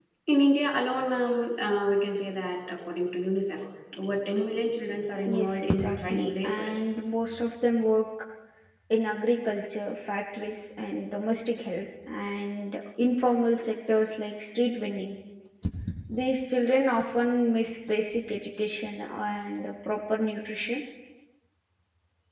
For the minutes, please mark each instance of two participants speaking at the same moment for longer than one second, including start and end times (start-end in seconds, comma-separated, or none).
5.3-6.7